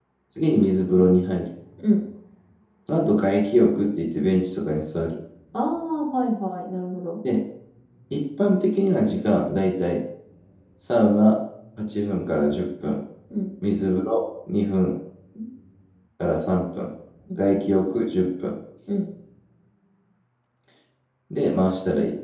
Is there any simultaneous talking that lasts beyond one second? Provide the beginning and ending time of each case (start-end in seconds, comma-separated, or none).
none